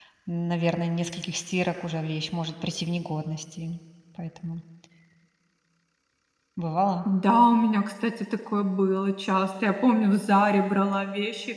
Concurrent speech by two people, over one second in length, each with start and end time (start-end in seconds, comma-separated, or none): none